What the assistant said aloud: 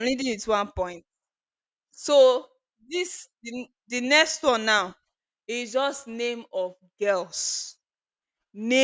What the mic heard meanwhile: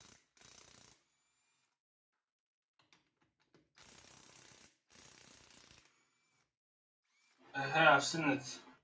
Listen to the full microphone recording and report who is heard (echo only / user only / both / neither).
user only